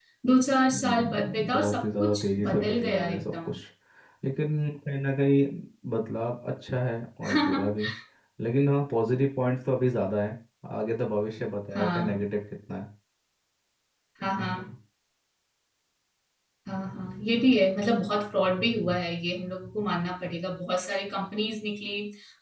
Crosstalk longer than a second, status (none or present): present